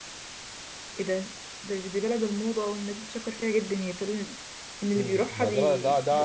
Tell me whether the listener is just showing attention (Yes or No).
No